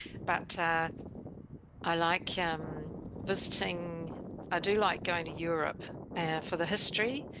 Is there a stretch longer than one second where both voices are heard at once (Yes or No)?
No